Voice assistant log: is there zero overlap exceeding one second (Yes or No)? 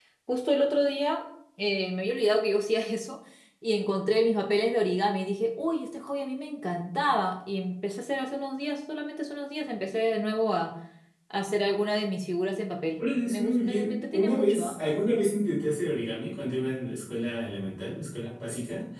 No